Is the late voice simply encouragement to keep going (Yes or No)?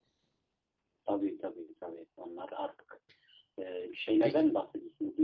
Yes